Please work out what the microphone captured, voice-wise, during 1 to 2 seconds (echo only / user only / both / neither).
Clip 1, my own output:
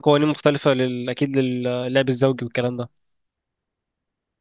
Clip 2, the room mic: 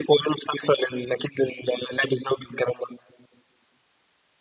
echo only